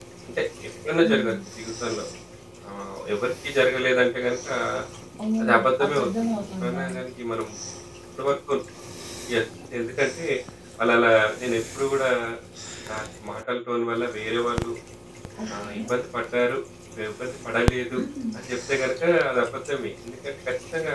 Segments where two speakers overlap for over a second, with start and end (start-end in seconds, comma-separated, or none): 5.4-6.8